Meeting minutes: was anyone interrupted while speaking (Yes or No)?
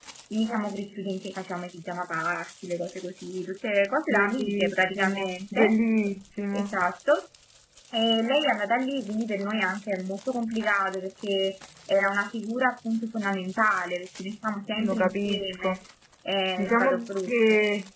Yes